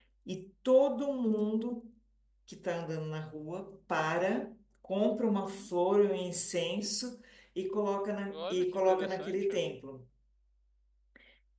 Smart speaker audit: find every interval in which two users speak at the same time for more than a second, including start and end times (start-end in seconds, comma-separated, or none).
8.3-9.6